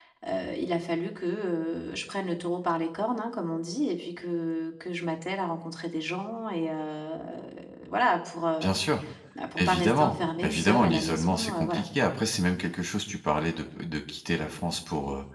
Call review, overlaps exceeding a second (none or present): present